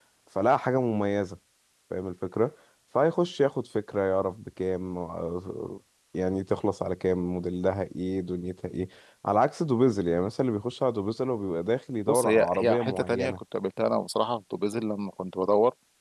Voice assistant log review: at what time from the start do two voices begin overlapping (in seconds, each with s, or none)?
12.1 s